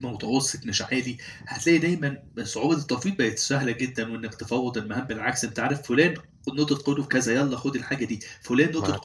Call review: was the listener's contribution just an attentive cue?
Yes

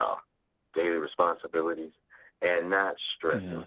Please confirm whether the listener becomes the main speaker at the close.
No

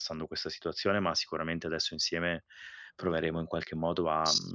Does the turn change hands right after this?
No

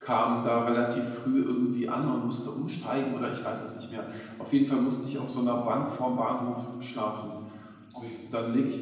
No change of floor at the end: Yes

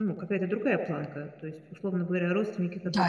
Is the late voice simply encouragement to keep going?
Yes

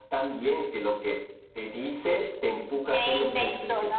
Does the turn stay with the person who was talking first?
No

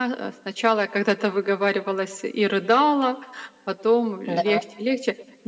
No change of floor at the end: Yes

